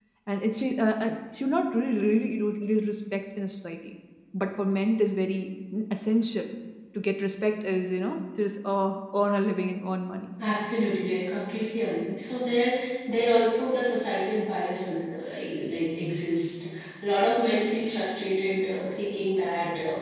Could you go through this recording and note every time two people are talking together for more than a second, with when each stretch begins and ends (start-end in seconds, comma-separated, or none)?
none